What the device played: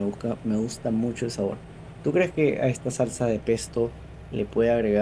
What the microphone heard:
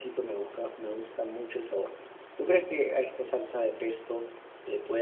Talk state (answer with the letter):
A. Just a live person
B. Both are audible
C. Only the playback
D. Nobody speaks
C